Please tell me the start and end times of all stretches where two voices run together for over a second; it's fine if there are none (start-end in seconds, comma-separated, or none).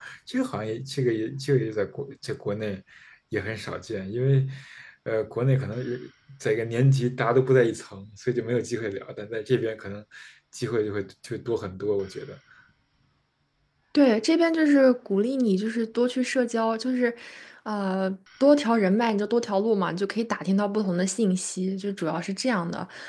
none